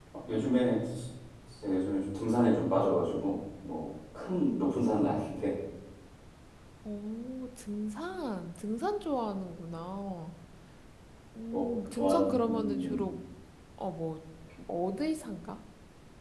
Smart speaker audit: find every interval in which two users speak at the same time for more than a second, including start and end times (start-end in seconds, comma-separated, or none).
11.5-13.0